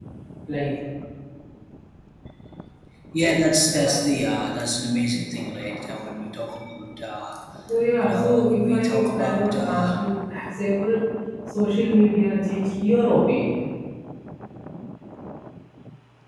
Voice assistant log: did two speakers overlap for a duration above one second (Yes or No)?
Yes